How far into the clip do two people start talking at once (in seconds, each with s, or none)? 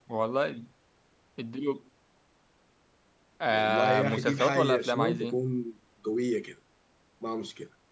3.5 s